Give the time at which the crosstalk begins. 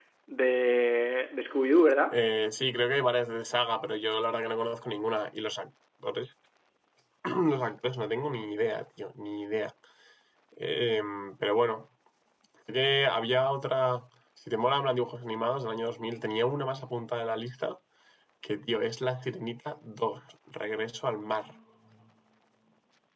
none

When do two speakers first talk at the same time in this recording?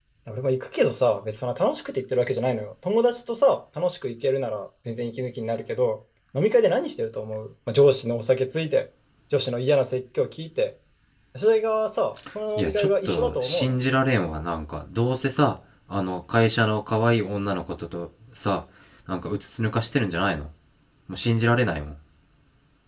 13 s

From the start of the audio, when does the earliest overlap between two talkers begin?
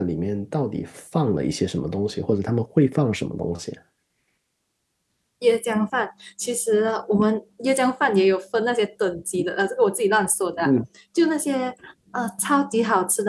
none

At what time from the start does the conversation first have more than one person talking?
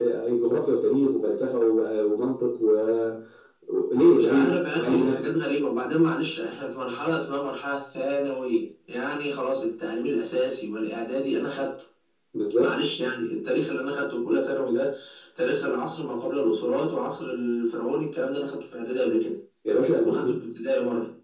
4 s

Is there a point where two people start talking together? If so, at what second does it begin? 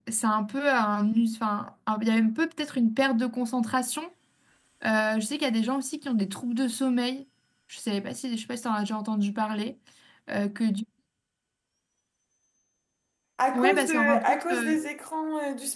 14 s

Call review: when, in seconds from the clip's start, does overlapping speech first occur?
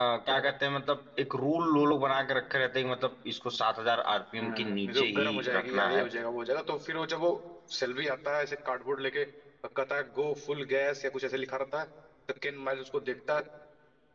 4 s

